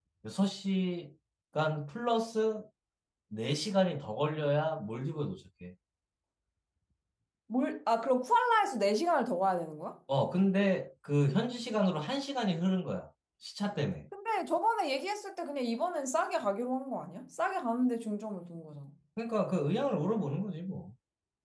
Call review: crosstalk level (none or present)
none